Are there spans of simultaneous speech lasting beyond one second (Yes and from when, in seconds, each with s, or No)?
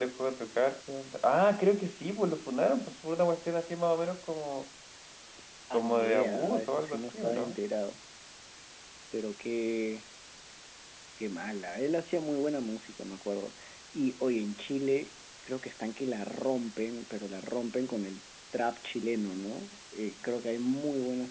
Yes, from 5.7 s